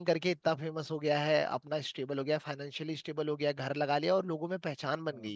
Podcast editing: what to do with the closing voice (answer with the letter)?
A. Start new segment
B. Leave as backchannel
A